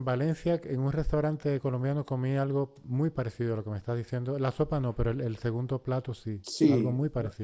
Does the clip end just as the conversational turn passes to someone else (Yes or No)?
Yes